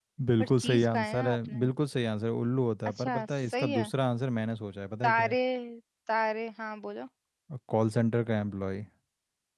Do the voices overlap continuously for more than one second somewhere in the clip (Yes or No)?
Yes